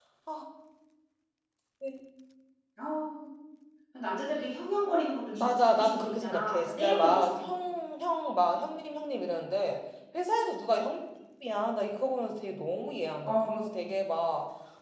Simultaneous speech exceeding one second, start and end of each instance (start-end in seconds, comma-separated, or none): 5.3-7.5